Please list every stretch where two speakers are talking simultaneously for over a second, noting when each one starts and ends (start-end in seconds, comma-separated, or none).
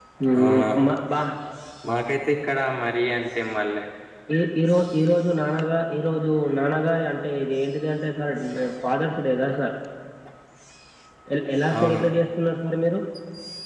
none